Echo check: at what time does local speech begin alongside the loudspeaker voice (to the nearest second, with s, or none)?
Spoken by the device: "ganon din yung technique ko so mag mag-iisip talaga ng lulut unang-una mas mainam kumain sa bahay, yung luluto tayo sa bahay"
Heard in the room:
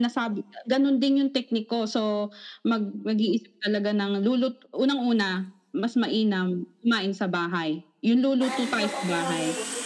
8 s